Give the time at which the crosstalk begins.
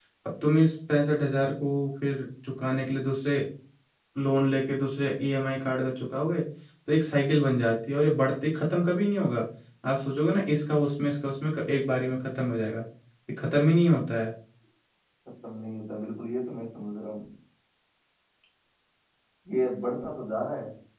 none

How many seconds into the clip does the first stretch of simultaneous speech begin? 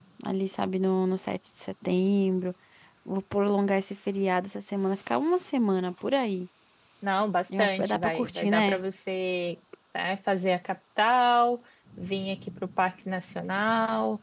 7.6 s

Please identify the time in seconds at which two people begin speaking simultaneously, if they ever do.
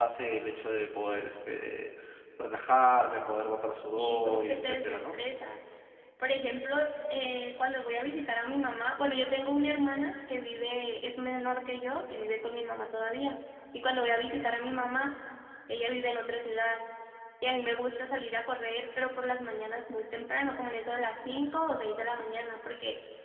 4.0 s

